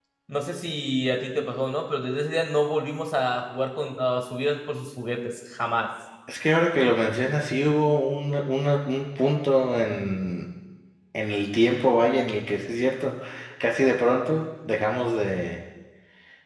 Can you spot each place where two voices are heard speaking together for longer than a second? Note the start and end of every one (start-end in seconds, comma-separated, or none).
none